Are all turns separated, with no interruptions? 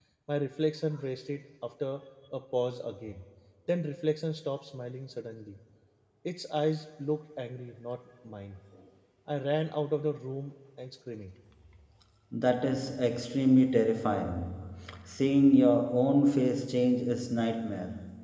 Yes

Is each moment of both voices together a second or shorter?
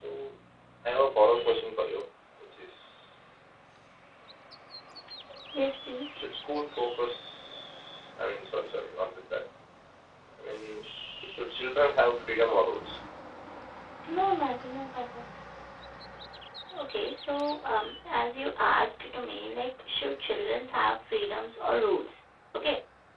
Yes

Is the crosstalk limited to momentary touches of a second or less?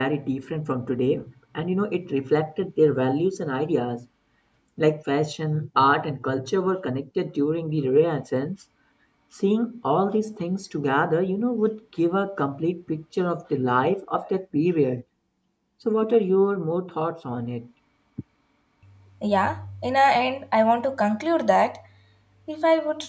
Yes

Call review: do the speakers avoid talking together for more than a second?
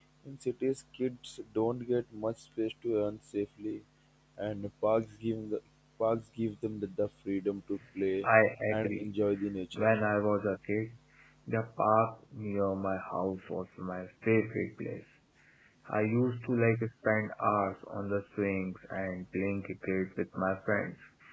Yes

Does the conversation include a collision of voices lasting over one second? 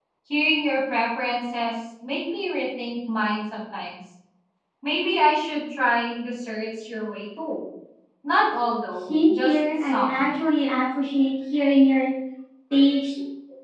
Yes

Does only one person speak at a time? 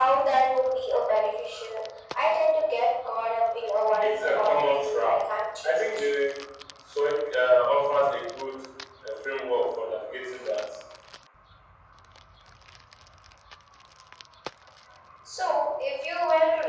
No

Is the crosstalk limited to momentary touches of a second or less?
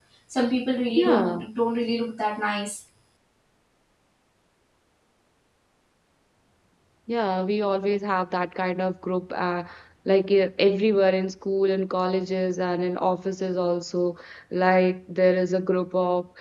Yes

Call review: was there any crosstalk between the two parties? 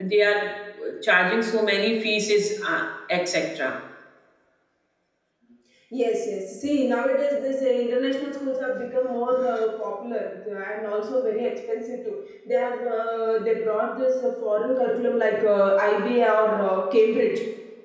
No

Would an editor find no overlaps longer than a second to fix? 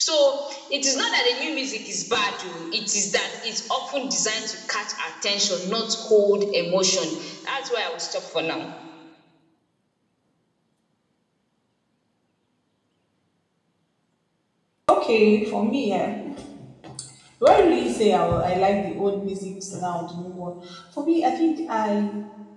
Yes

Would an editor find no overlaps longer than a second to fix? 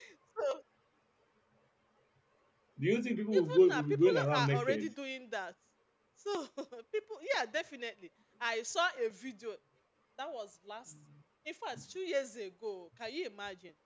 No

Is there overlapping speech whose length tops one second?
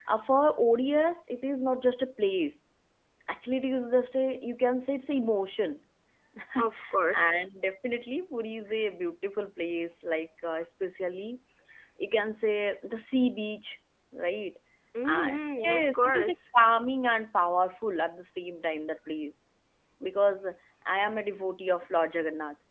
Yes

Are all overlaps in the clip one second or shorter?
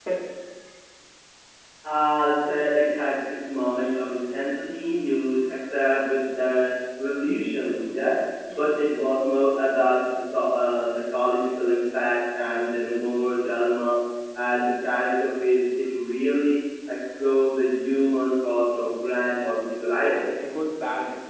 Yes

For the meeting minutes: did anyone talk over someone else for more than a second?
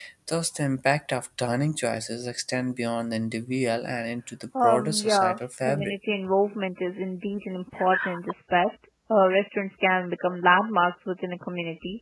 Yes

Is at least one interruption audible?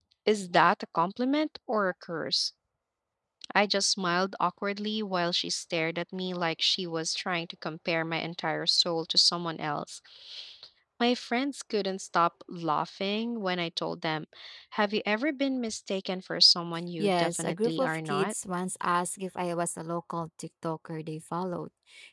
Yes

